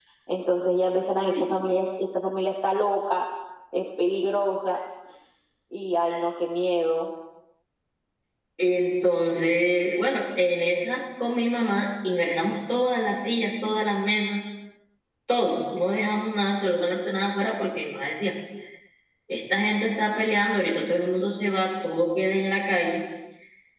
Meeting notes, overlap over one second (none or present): none